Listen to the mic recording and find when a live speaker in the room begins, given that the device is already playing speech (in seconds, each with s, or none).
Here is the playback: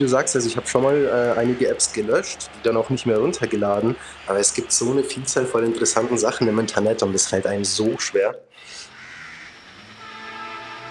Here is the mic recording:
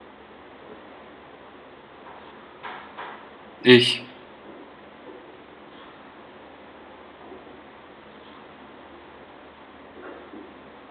3.6 s